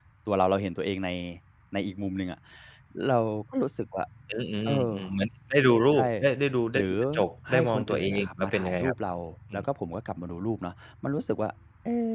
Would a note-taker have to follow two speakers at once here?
Yes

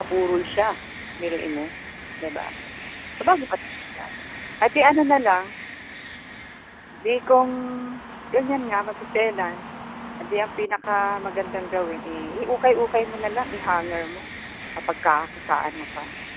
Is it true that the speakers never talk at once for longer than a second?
Yes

